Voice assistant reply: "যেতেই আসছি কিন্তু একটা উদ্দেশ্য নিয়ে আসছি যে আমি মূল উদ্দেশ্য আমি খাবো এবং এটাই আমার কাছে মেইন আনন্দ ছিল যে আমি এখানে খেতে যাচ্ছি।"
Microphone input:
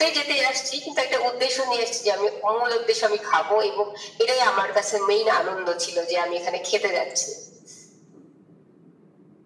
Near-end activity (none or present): none